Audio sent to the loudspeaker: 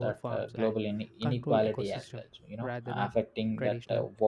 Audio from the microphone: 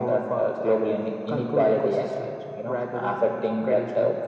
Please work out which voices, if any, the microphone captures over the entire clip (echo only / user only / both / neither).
echo only